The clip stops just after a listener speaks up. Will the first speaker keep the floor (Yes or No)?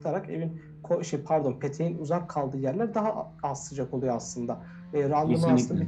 Yes